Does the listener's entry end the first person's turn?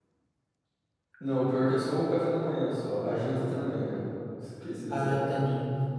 Yes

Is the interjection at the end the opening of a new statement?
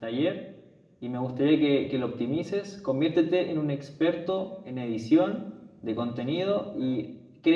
No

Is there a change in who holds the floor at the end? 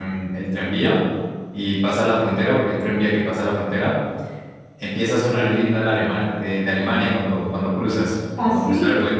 No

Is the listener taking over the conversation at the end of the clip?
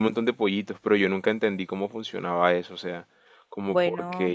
No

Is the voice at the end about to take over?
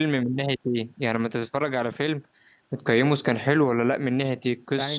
Yes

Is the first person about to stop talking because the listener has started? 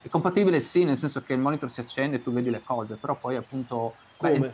No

